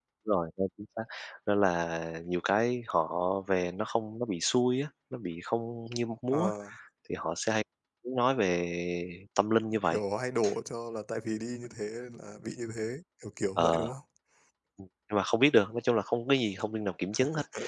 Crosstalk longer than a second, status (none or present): none